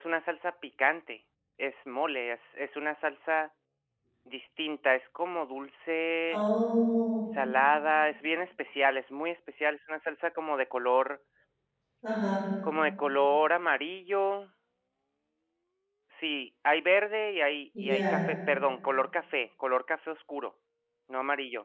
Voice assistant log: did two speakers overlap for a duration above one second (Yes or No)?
No